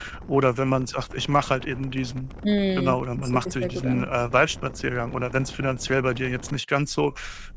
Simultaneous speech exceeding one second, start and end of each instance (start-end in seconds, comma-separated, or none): 2.8-4.1